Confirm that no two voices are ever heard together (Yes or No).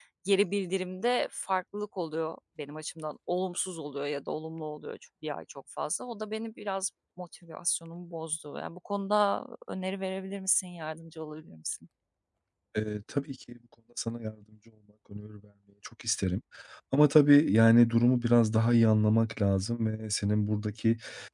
Yes